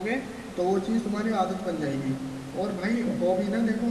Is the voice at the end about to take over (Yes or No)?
No